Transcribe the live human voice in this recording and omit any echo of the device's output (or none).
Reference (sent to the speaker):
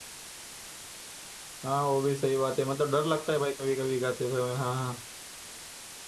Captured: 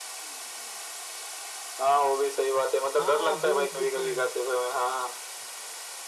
हाँ बोन टू साइन